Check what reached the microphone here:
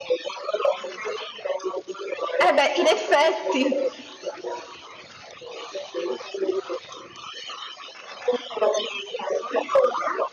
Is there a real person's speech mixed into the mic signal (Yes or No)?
Yes